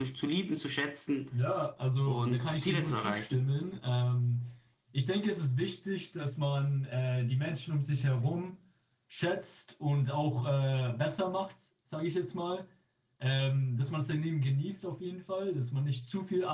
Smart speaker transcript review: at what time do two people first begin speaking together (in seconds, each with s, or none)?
2.1 s